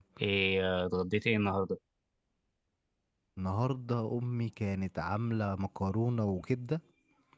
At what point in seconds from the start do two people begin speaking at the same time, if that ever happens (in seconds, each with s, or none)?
none